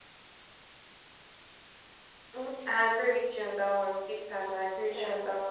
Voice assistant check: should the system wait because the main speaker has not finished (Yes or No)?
Yes